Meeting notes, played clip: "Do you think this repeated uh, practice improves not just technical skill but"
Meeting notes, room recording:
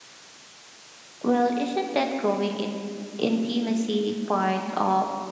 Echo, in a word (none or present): none